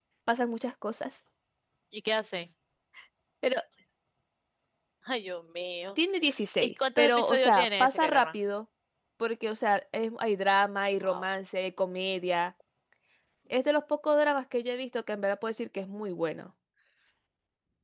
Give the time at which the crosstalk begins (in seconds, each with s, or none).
6.6 s